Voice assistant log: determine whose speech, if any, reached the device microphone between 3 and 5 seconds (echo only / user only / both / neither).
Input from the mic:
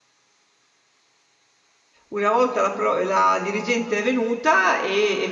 user only